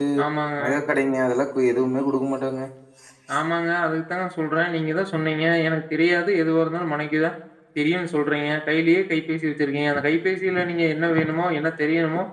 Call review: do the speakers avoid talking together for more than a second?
Yes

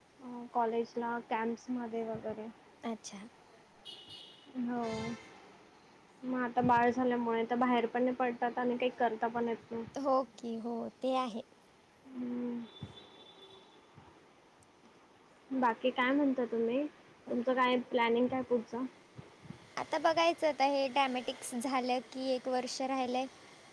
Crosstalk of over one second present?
No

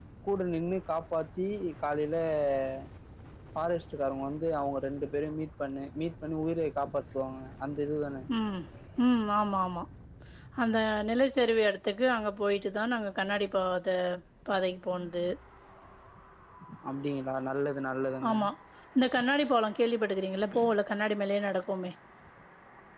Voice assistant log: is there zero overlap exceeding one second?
Yes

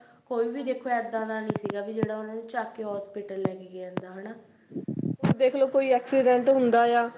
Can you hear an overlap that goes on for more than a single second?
No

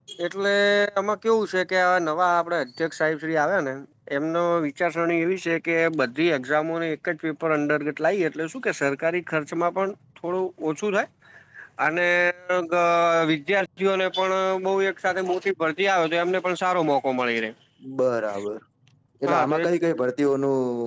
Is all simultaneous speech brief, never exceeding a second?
Yes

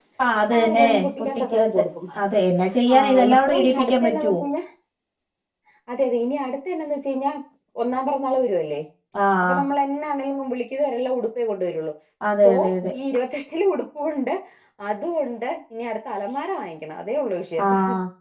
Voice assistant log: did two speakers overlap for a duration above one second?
Yes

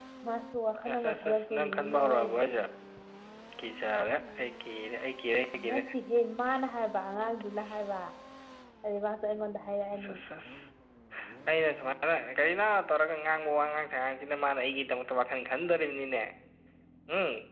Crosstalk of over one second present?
Yes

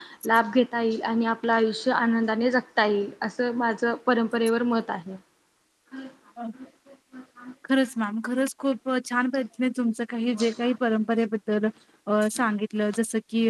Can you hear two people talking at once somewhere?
No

